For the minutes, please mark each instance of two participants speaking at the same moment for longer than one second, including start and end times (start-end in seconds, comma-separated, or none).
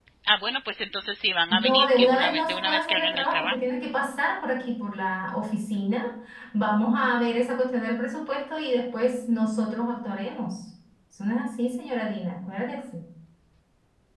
1.5-3.6